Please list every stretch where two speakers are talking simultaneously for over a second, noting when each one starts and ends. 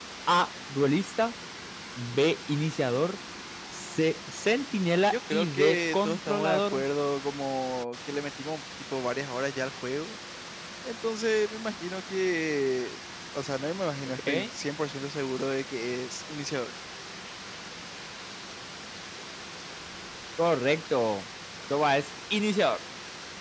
5.1-6.8

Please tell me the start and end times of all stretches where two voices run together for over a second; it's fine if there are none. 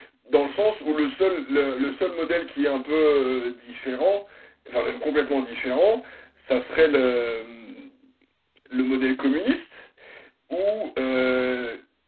none

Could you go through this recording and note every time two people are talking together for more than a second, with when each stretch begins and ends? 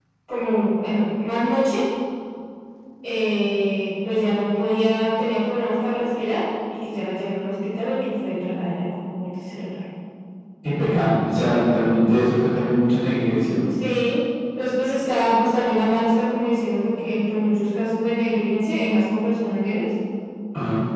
none

